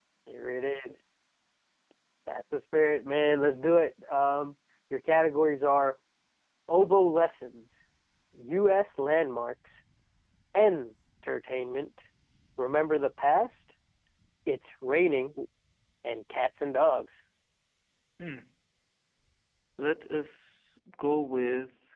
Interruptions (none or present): none